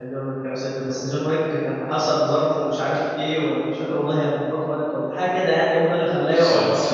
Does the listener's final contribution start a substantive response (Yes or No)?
No